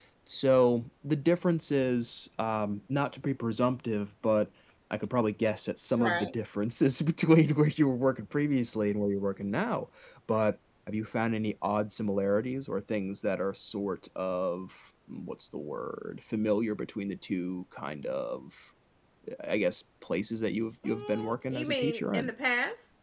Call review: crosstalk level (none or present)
present